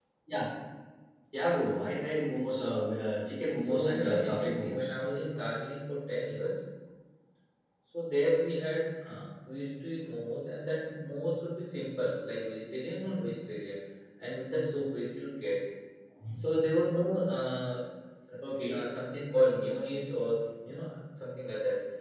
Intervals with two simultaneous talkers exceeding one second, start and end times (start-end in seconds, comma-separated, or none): 3.6-4.9